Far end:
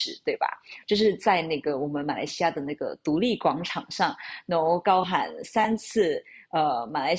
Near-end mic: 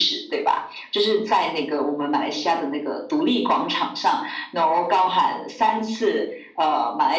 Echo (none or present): present